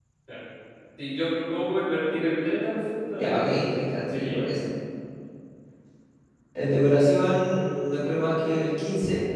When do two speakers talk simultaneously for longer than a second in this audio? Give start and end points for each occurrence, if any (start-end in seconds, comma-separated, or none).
3.1-4.4